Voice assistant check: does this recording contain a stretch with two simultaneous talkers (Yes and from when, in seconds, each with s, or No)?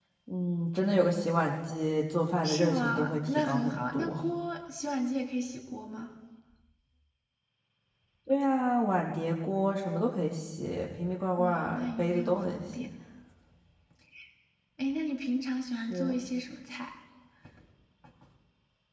Yes, from 2.4 s